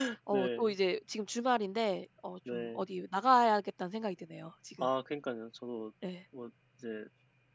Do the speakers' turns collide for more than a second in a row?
No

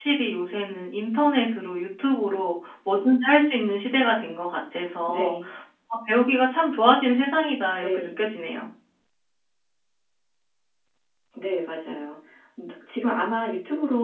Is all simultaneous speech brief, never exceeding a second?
Yes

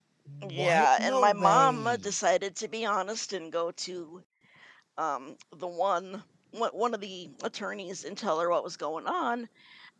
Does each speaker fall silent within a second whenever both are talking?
No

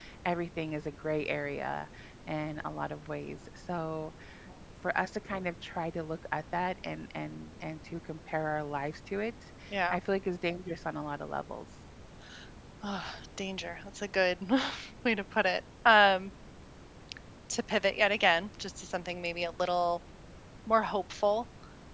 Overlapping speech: No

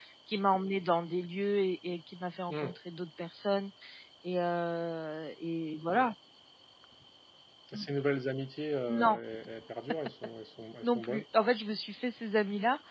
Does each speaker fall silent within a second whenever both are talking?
Yes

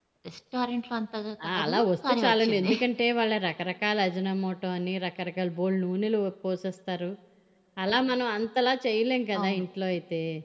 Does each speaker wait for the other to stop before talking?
No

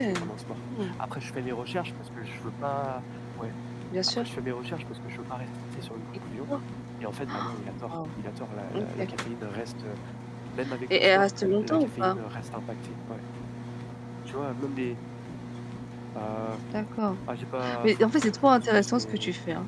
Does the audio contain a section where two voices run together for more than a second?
Yes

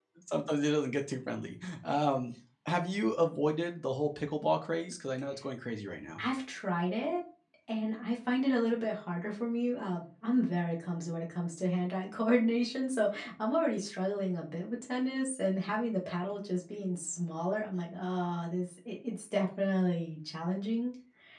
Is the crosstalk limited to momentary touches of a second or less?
Yes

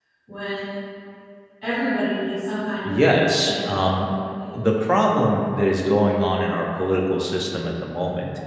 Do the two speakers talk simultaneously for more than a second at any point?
Yes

